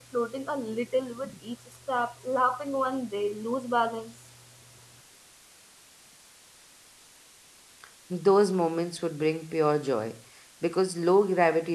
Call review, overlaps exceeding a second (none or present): none